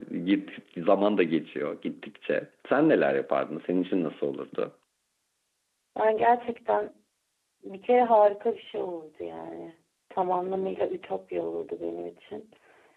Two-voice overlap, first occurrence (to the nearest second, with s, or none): none